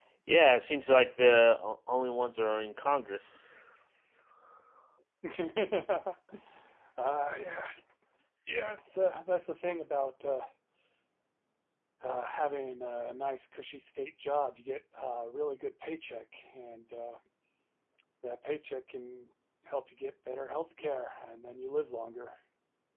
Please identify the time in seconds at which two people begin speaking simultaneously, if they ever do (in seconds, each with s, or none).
none